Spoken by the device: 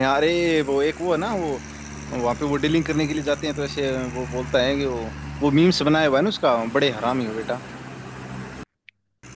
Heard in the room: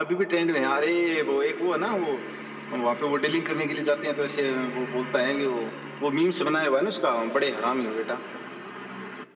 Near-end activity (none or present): none